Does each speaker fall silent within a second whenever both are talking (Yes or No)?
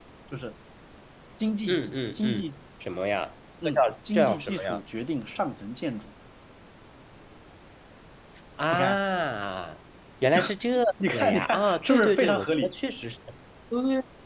No